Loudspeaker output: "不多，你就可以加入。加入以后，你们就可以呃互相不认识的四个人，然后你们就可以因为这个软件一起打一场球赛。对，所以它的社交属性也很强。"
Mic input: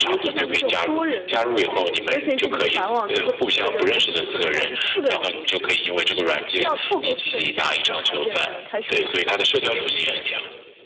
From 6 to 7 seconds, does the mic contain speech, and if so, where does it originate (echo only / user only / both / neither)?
both